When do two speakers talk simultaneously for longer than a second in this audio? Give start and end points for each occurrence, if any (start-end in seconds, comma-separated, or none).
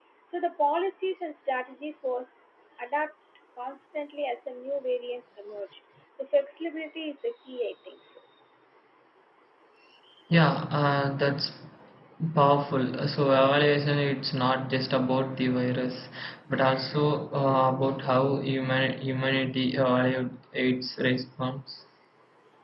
none